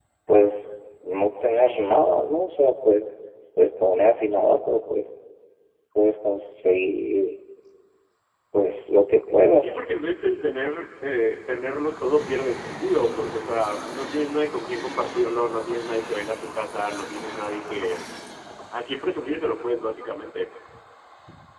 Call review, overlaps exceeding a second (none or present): none